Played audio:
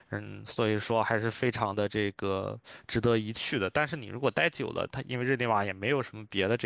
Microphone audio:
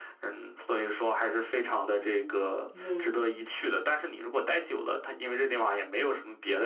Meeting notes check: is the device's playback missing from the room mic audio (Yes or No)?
No